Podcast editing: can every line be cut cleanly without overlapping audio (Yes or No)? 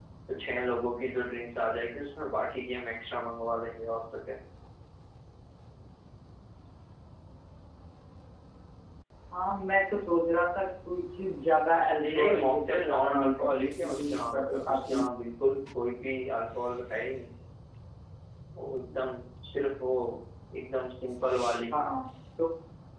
No